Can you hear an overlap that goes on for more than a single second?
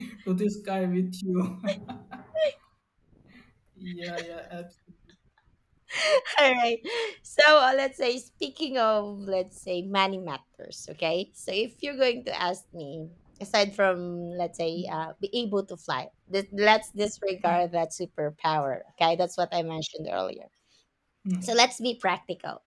No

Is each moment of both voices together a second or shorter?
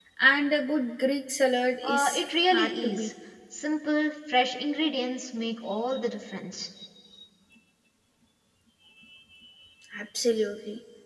No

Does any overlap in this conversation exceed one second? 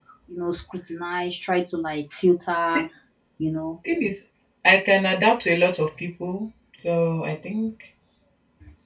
No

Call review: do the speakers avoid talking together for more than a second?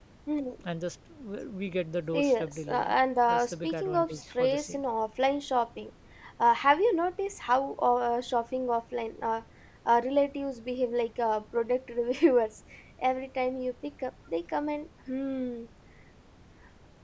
No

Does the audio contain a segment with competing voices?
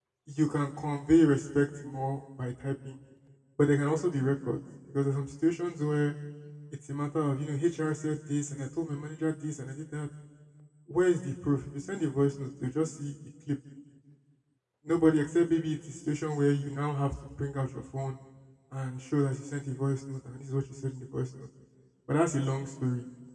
No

